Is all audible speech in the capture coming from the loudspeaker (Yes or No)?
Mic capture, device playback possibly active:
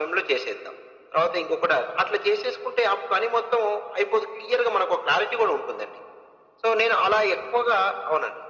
Yes